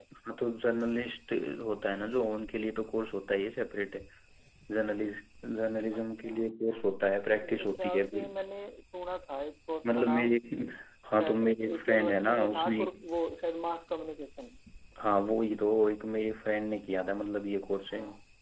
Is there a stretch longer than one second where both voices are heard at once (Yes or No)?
Yes